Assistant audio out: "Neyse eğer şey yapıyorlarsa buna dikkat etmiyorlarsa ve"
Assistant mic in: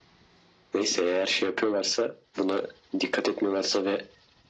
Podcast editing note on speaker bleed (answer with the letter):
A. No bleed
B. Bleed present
B